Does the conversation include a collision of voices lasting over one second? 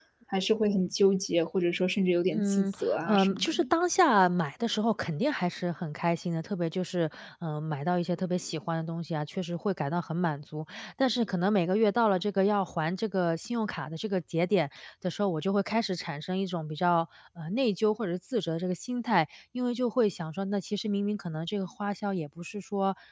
Yes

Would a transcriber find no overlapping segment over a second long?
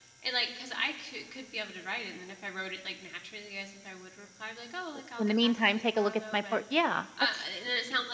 No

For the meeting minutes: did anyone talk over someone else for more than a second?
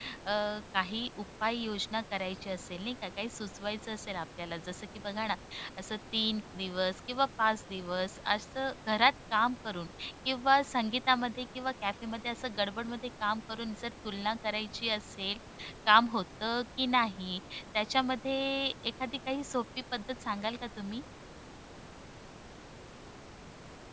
No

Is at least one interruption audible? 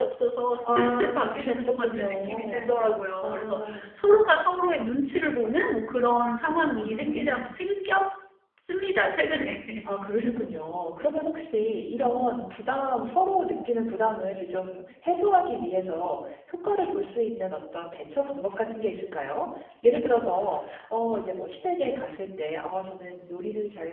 Yes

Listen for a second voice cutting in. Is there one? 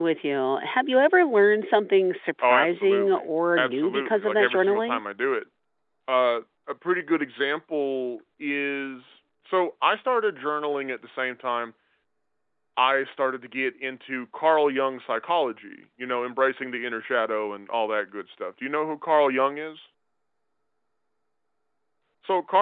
Yes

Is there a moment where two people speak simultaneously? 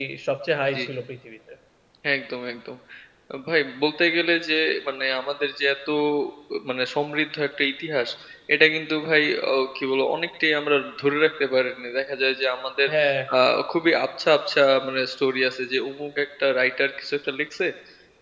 No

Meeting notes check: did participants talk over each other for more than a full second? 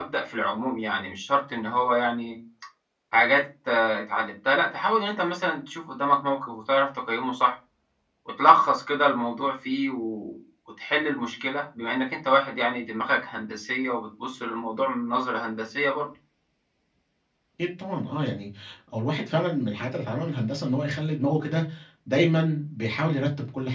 No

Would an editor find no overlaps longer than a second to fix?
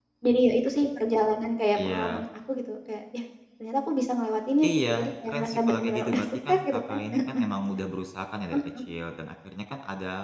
No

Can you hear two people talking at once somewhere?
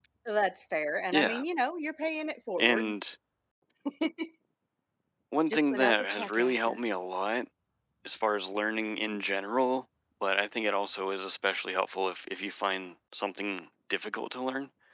Yes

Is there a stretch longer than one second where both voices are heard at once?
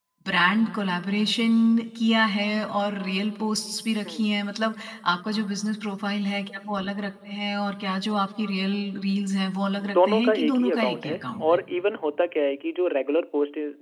Yes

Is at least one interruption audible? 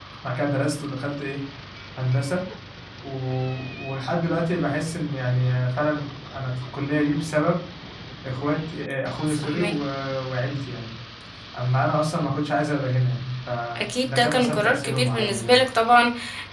Yes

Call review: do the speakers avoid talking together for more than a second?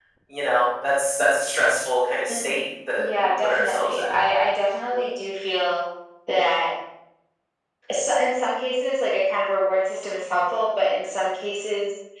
No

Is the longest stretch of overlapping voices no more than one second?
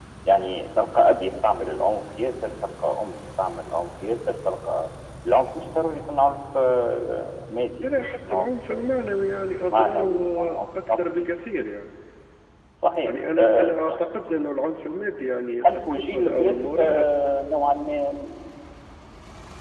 No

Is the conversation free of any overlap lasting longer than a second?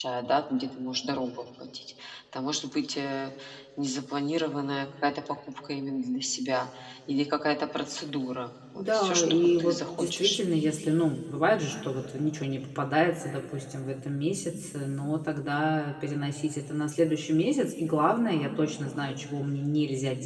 No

